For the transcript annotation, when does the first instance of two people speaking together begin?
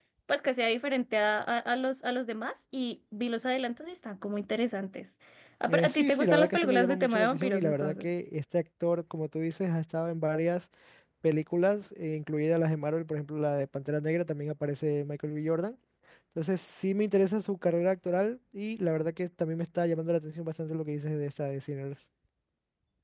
5.7 s

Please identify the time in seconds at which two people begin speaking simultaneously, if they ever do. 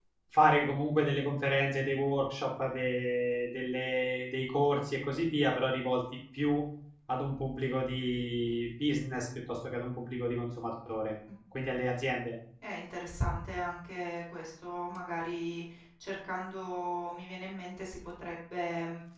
none

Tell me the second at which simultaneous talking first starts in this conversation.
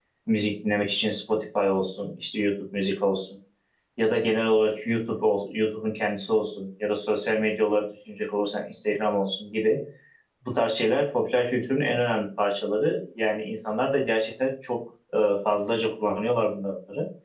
none

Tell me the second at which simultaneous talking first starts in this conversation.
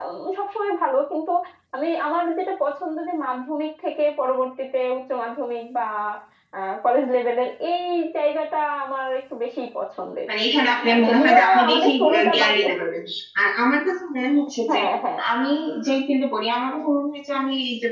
10.8 s

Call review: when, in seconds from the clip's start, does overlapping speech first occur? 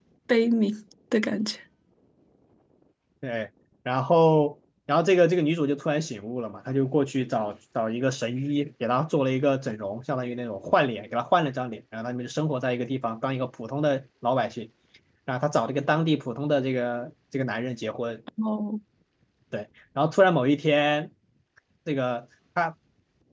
none

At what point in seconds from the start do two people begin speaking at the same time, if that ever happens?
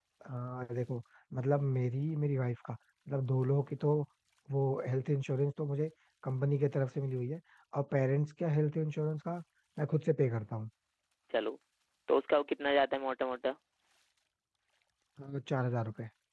none

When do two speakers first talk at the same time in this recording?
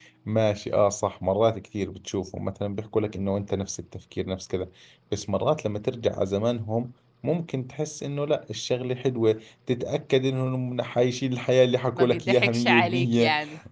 12.0 s

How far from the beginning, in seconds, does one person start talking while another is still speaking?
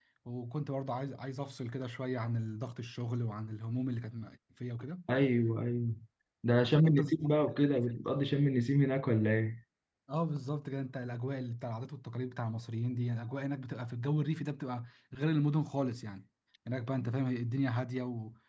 6.6 s

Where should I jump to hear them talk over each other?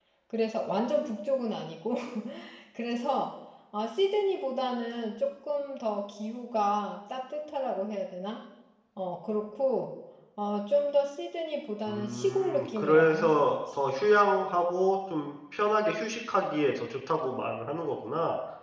11.9 s

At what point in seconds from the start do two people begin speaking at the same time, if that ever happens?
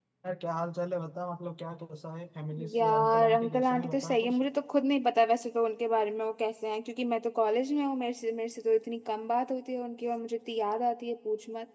2.8 s

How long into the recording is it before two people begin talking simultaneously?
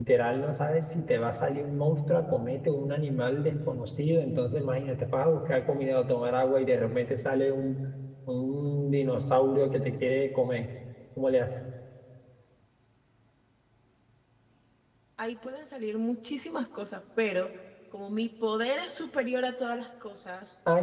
none

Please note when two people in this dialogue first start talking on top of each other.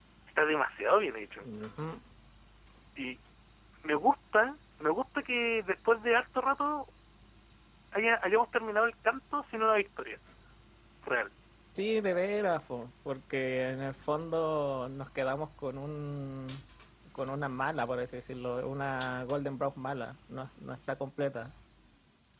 none

